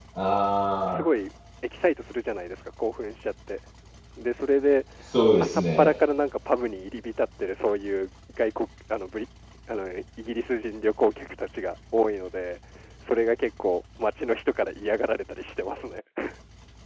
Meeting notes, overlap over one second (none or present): none